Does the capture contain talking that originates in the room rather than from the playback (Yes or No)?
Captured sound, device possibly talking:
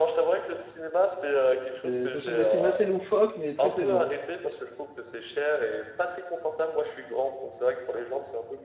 Yes